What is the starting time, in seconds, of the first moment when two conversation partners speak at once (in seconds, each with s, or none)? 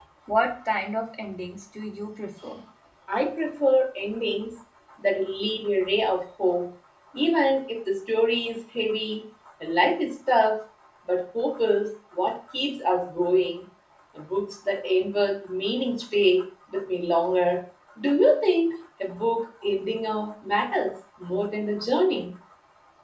none